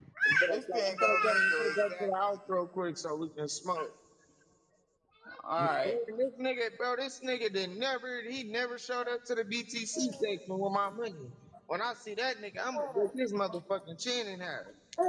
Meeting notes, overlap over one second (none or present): present